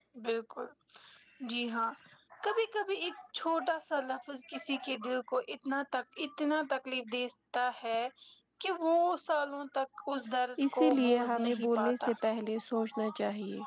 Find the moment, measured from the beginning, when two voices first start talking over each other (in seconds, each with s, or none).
10.6 s